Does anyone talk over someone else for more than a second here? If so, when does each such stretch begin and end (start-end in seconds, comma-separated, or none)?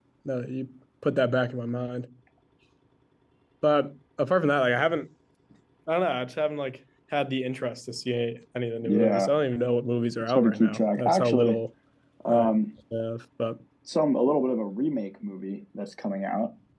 10.3-11.6